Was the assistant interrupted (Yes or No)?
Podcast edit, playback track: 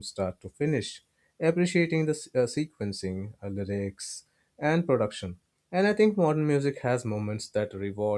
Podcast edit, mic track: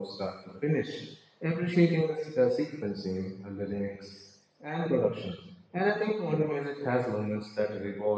No